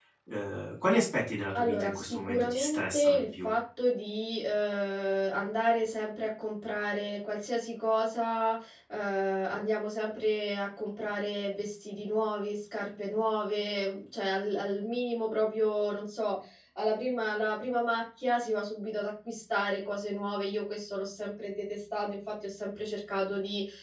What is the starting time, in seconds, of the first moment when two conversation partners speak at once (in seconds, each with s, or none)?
1.5 s